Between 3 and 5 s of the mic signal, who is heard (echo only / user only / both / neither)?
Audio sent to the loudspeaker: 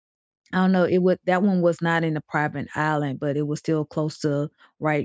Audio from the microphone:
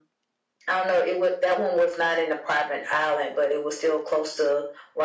echo only